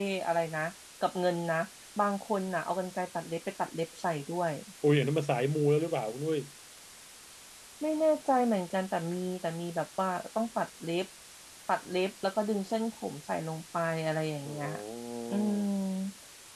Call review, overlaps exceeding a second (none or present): none